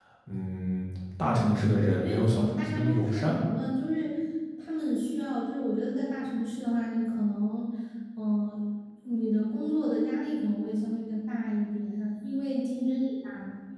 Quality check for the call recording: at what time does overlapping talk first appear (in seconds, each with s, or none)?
1.2 s